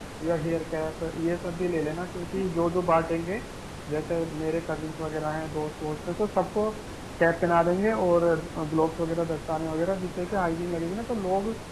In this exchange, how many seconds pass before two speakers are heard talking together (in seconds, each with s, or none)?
none